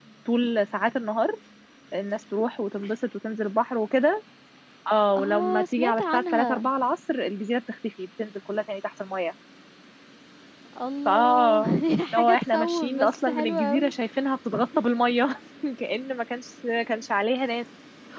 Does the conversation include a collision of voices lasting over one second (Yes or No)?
Yes